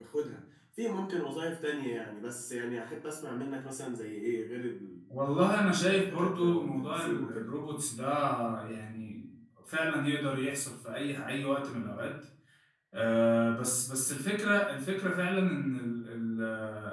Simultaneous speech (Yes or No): Yes